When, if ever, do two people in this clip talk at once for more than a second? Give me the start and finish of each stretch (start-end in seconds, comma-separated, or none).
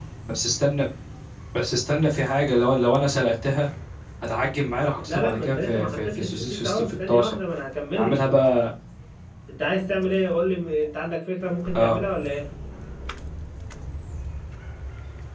5.0-7.4